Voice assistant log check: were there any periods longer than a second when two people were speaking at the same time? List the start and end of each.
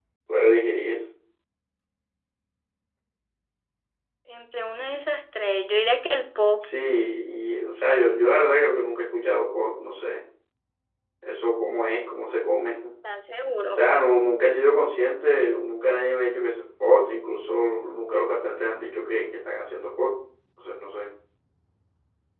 none

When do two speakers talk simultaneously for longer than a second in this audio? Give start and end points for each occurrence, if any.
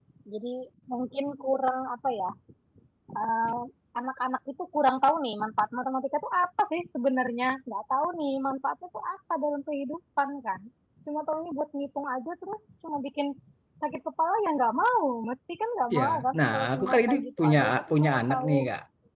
16.0-18.6

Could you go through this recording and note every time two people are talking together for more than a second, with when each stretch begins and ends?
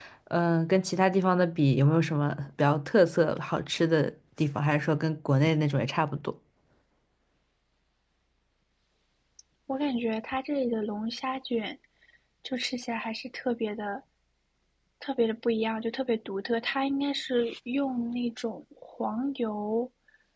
none

